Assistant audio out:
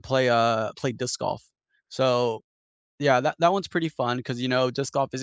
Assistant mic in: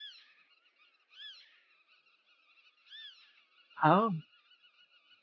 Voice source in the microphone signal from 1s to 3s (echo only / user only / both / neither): neither